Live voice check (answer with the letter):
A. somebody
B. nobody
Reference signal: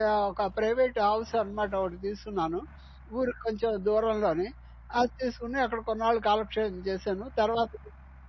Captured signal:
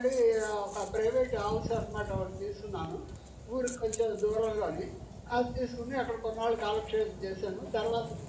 B